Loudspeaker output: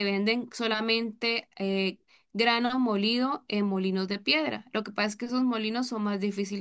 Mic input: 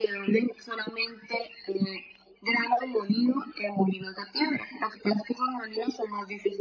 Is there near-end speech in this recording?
No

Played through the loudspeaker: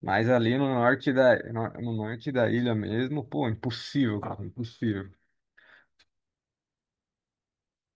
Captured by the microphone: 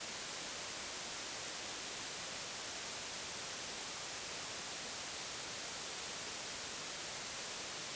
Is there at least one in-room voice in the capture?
No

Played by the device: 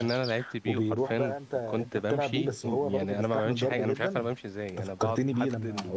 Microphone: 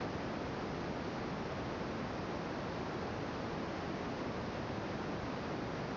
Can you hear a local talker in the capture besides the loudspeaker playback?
No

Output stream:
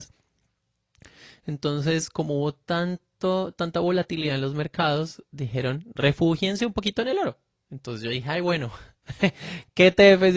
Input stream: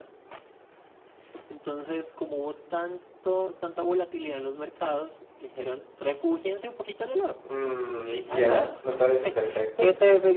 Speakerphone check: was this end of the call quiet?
No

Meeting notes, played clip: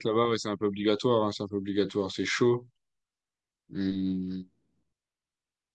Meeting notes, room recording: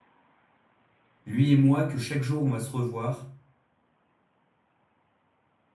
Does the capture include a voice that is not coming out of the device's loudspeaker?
Yes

